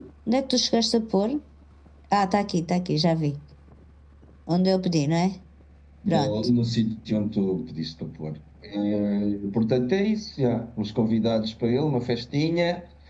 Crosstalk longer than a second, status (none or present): none